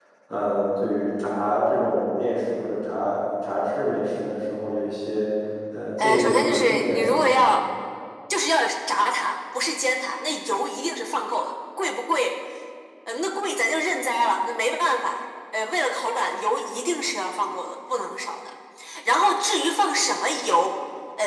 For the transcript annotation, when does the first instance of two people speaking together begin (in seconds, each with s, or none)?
6.0 s